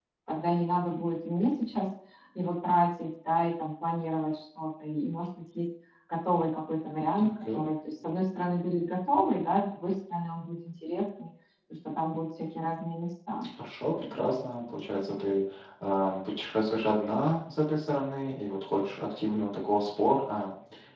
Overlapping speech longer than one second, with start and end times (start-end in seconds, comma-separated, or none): none